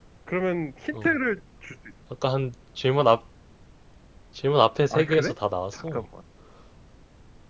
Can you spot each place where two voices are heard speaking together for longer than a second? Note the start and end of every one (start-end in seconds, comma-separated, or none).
none